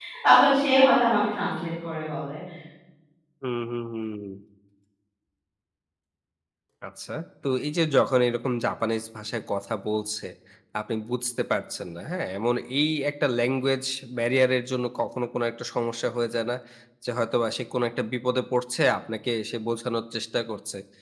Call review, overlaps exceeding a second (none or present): none